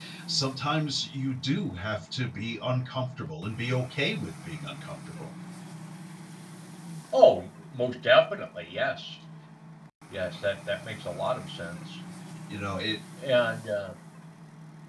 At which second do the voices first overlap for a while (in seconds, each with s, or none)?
none